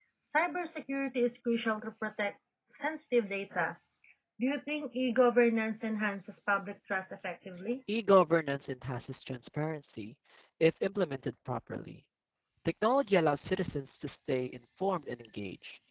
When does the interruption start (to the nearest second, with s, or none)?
none